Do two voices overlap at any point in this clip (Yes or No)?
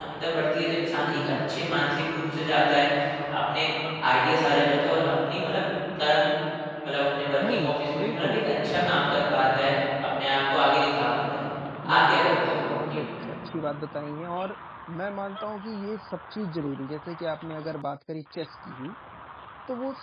Yes